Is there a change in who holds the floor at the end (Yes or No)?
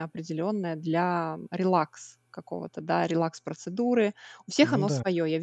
No